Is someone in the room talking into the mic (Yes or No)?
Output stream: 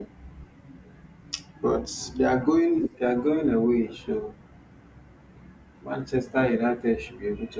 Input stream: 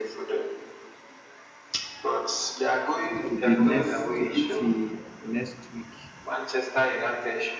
Yes